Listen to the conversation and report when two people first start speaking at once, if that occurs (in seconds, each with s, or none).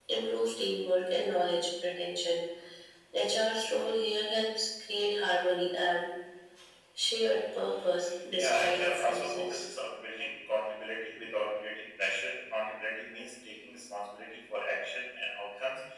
8.4 s